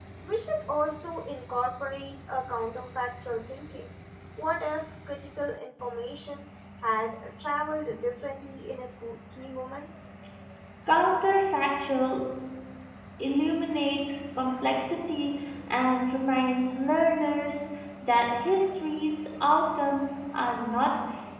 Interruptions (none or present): none